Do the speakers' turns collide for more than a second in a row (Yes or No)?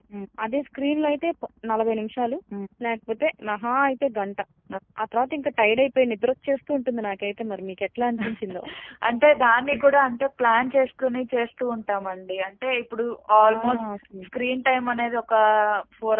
No